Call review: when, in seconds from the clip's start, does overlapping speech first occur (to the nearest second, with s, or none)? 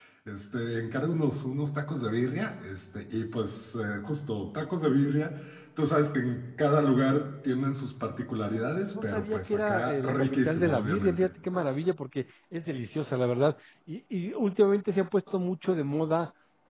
9 s